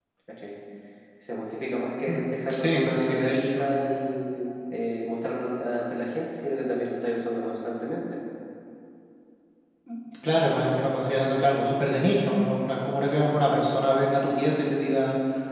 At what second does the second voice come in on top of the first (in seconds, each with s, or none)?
2.1 s